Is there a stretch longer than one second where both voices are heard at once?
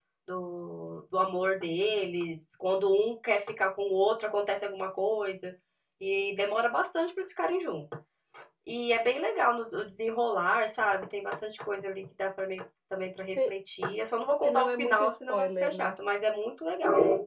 Yes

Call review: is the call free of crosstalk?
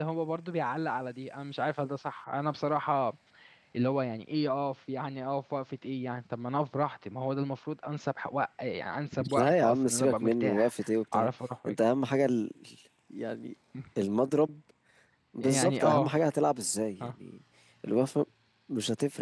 No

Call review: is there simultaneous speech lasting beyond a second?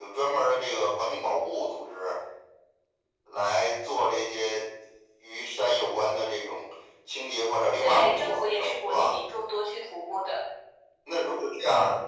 Yes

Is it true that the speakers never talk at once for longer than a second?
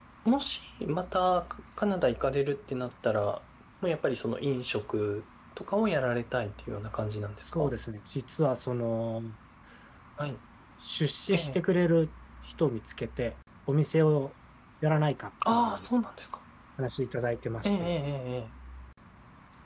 Yes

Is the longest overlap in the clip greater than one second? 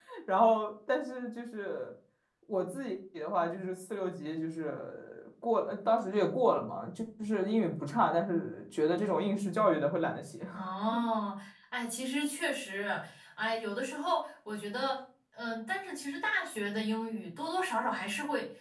No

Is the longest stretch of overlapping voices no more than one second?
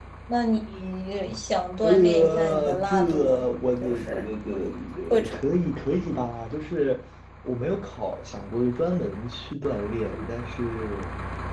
No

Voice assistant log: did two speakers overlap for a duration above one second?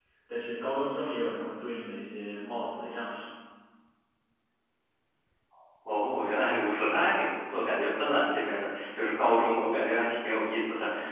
No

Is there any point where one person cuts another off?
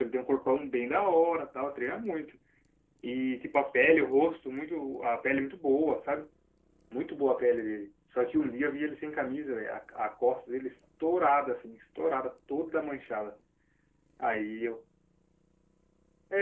No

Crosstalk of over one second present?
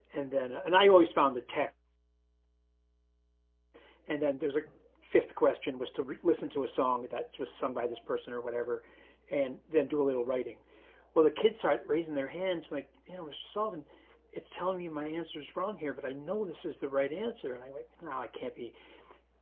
No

